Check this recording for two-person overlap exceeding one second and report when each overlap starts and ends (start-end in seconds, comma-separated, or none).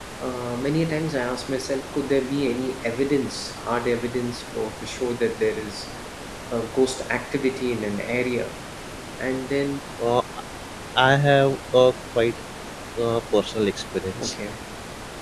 none